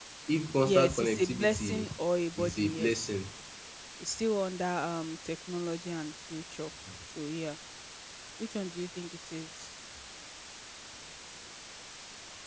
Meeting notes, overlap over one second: present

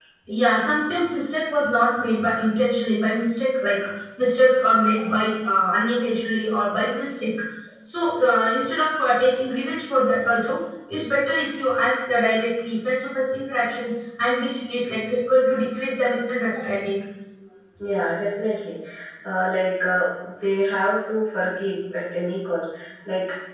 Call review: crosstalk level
none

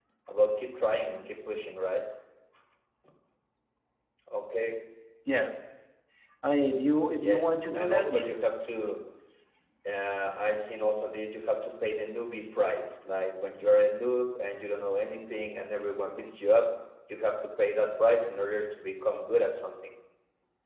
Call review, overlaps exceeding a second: present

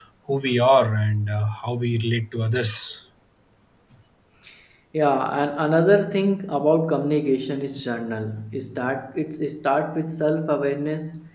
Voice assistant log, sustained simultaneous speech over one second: none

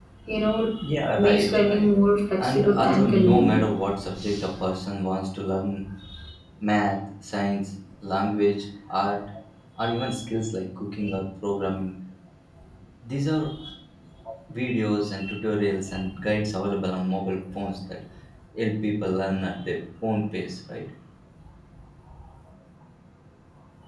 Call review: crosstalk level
present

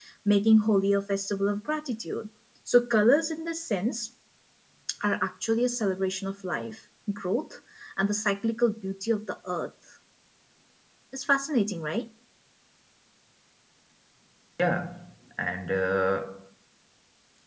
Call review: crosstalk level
none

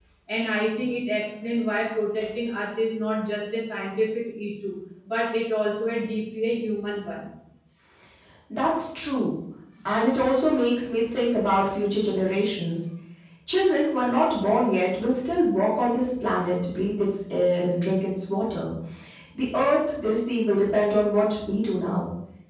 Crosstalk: none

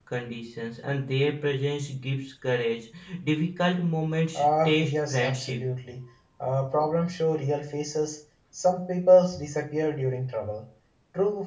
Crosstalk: present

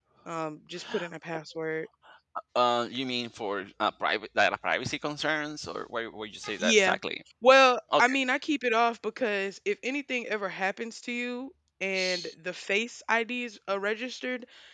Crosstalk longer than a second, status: none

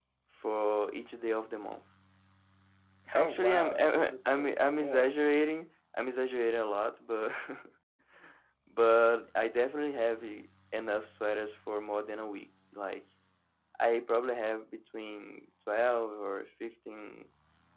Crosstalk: present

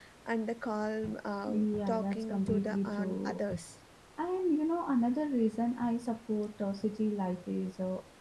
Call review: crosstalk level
present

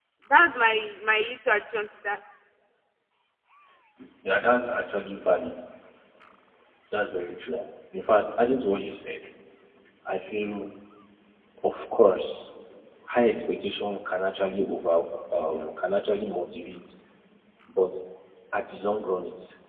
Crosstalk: none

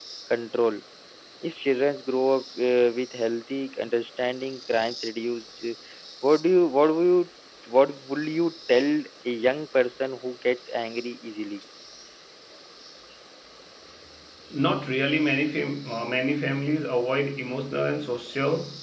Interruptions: none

